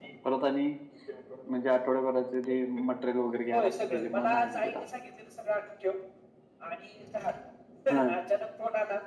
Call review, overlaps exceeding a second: present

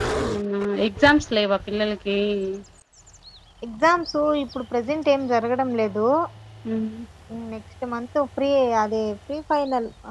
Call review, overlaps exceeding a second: none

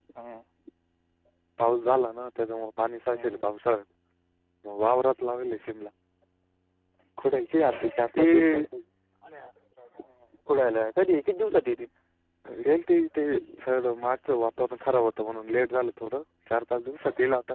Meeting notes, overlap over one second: none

